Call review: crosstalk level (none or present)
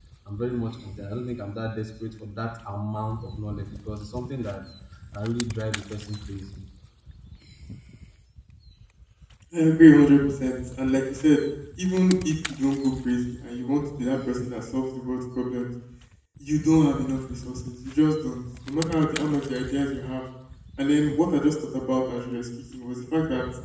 none